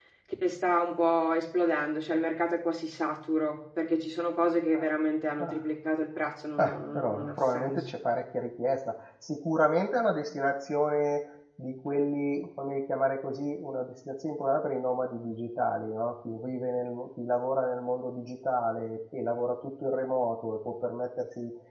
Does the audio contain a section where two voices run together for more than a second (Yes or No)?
Yes